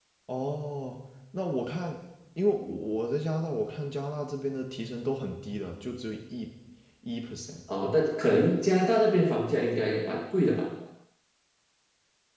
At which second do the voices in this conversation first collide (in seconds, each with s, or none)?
none